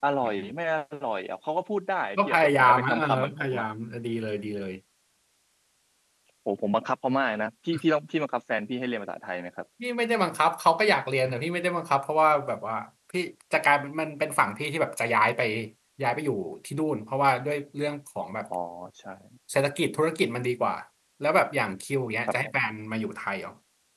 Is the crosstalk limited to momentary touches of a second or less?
No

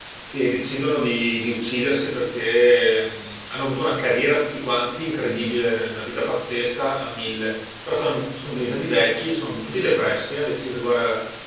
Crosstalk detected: No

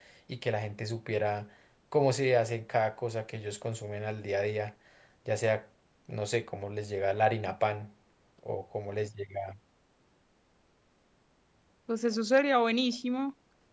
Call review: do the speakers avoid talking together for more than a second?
Yes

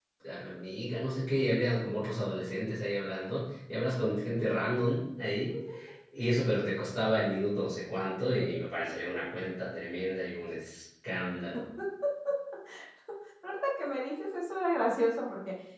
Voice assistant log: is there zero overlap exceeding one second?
Yes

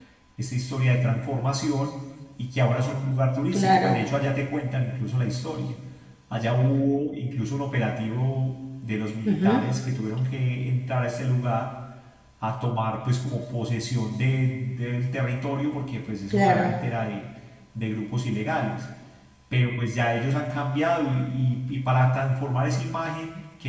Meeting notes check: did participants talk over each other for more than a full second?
No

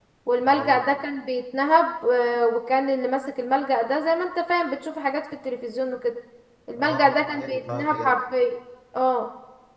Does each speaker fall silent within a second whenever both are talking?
No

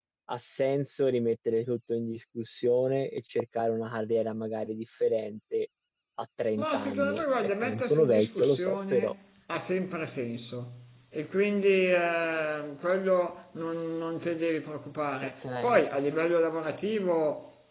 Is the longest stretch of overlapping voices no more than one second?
No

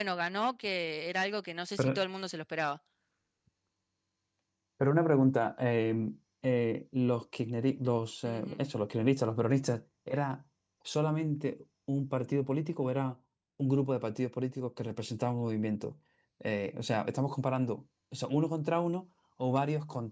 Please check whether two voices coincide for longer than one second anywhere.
No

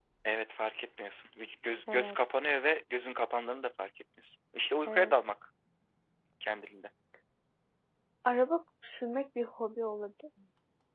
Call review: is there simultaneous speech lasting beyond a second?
No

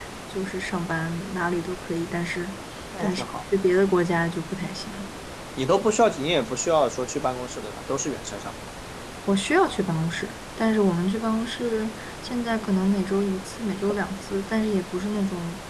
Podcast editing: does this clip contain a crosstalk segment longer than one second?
No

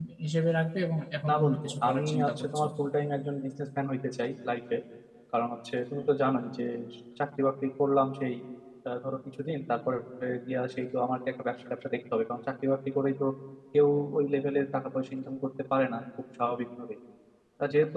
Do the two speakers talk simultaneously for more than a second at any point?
Yes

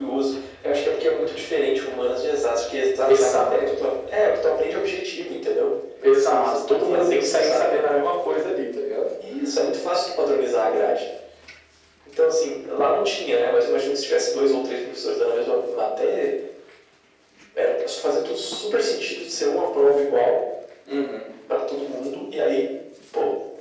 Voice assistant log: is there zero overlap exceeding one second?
No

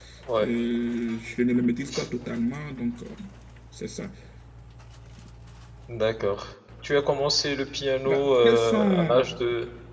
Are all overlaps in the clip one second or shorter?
No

